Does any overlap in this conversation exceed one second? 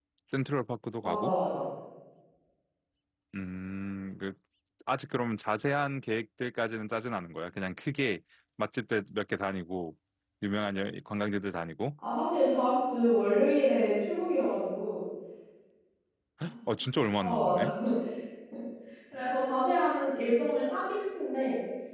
No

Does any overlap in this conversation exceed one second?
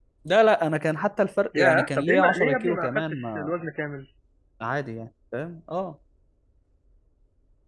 Yes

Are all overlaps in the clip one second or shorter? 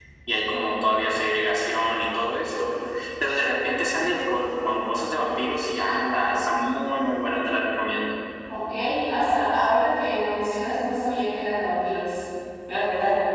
Yes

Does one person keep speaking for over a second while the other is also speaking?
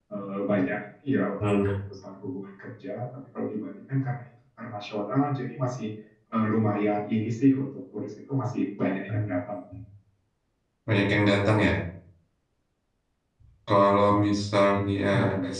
No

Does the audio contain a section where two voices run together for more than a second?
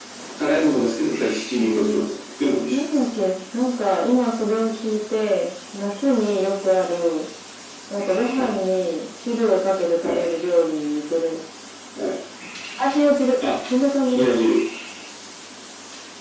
No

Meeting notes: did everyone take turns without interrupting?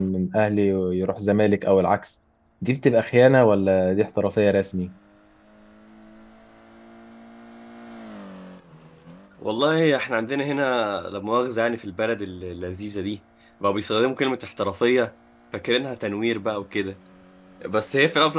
Yes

